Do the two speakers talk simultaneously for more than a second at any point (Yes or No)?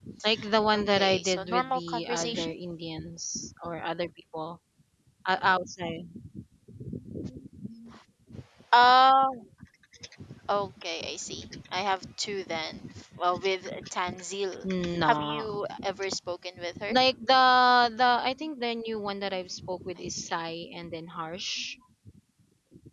Yes